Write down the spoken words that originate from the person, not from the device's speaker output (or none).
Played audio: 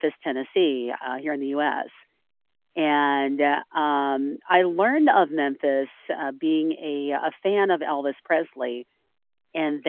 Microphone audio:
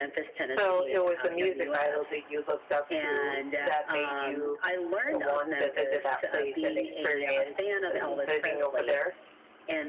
So it was a music idol that you looked up to that made you uh, want to visit that place and experience uh, living over there?